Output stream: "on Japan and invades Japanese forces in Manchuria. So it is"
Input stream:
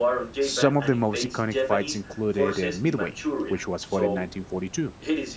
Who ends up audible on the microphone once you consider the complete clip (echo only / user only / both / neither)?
both